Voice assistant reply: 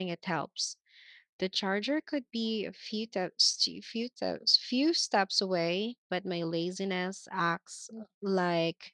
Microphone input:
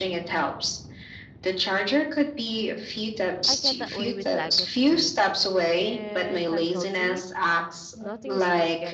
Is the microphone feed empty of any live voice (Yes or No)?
No